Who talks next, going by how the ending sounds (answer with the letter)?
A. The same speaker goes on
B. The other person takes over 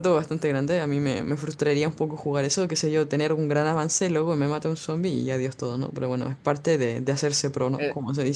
B